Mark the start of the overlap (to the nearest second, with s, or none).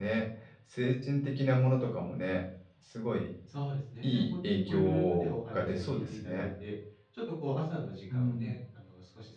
4 s